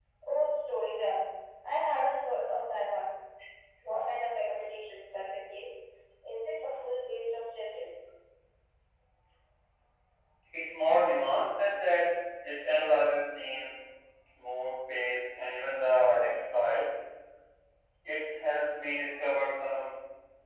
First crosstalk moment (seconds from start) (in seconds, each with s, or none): none